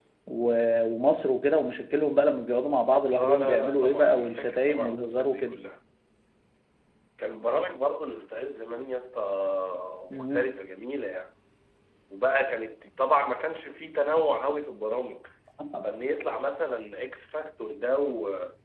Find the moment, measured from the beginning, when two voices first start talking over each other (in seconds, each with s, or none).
3.1 s